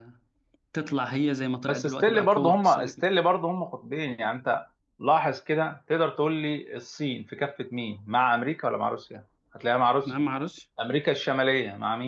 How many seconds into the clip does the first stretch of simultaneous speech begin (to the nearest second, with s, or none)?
2 s